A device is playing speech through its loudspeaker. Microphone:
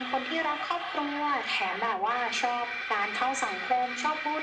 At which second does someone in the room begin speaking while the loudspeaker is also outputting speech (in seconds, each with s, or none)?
none